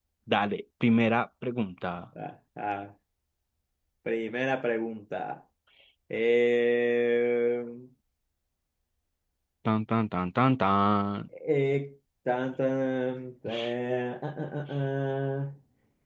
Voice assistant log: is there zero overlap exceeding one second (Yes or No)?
Yes